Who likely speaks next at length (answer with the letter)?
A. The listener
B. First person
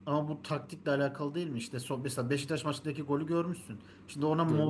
B